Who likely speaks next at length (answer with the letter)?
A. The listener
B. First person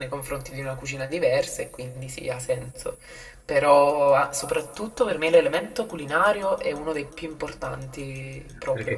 A